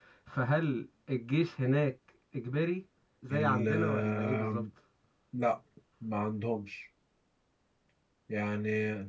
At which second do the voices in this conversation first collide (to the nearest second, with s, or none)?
3 s